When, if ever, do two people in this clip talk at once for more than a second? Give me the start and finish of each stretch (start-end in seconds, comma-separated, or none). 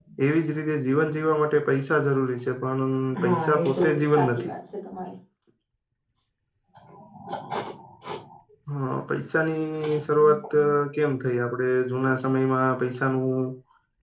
3.2-4.5